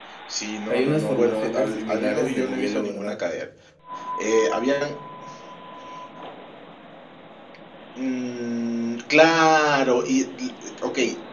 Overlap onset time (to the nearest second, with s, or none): 1 s